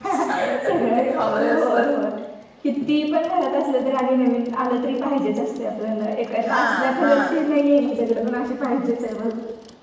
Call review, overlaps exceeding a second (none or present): present